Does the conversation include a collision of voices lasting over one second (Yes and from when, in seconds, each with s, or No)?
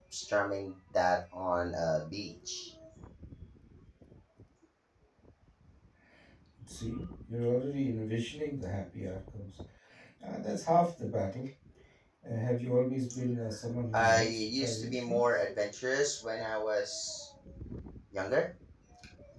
Yes, from 13.9 s